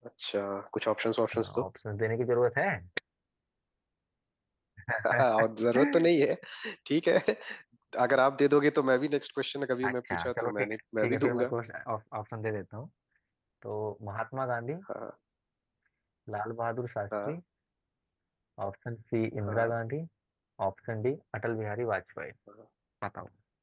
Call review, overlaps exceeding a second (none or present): present